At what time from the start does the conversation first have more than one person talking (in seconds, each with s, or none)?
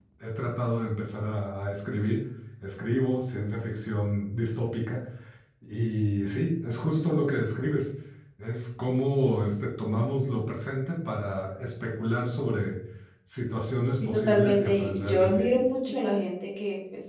14.1 s